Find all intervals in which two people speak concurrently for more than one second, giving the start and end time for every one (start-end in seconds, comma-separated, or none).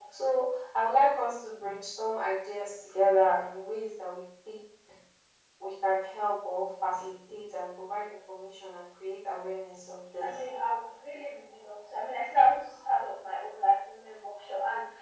none